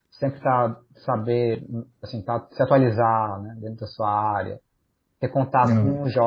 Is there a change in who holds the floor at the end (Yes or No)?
No